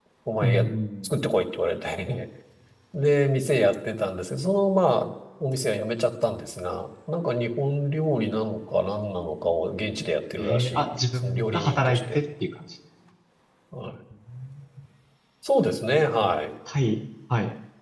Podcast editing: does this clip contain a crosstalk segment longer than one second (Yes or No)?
Yes